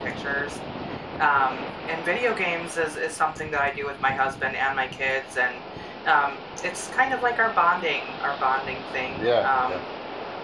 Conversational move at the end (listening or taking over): listening